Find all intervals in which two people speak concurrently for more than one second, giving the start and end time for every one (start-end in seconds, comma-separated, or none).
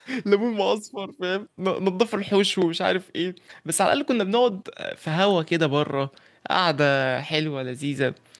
none